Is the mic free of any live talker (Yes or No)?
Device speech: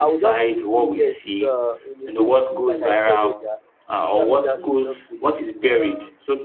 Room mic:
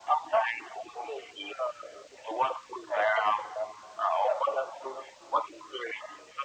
Yes